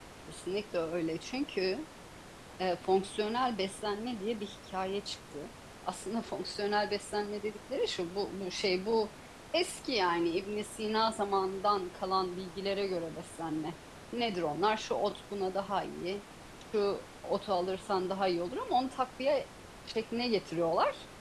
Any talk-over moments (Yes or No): No